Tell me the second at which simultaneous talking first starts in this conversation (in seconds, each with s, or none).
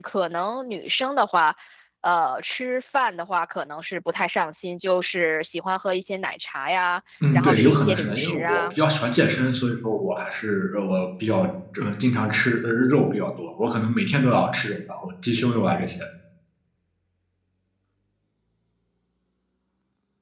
7.2 s